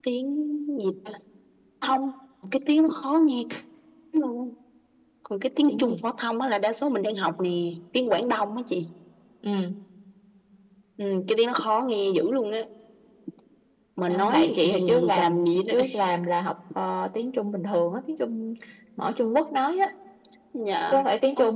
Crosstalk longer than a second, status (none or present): present